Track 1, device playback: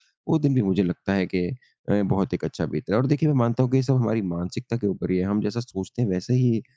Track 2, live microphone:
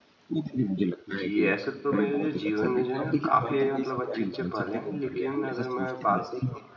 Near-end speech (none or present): present